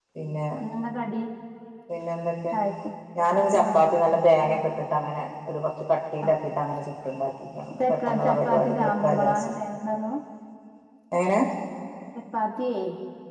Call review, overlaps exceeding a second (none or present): present